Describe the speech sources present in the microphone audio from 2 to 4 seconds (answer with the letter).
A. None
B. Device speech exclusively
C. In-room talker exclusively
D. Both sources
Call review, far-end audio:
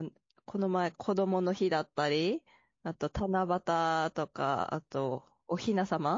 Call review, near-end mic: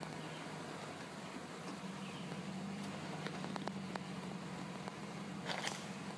A